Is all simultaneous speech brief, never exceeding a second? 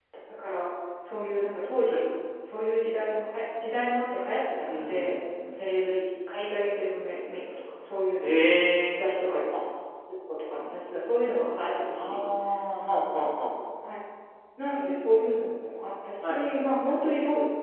Yes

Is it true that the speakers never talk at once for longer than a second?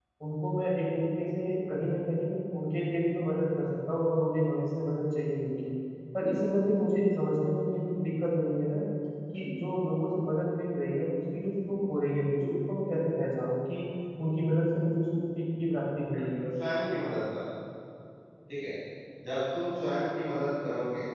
Yes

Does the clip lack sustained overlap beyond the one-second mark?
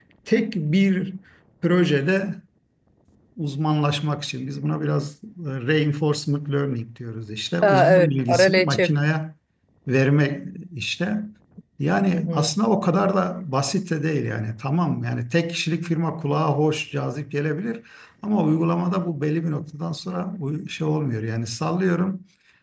No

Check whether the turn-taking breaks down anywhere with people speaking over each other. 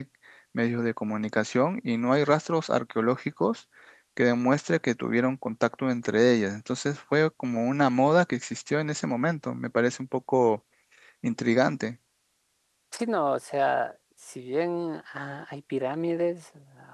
No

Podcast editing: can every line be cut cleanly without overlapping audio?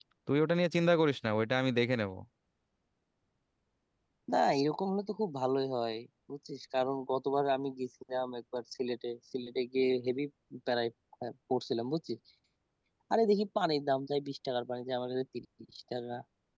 Yes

